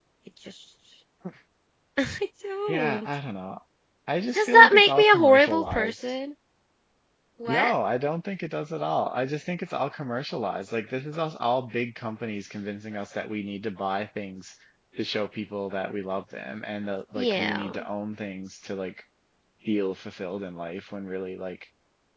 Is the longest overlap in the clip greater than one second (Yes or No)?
Yes